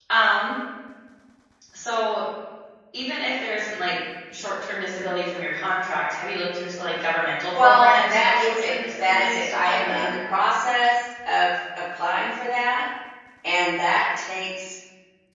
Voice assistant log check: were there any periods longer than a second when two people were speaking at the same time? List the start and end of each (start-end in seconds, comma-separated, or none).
7.5-10.1